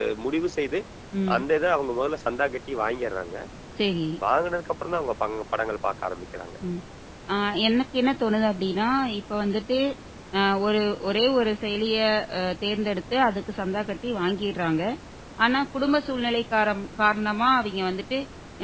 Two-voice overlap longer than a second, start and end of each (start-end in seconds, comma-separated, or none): none